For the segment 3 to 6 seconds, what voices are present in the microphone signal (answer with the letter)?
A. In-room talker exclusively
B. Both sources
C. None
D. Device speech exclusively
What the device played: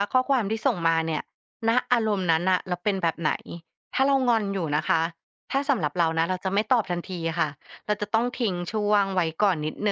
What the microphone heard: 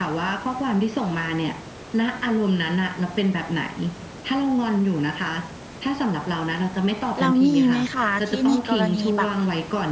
D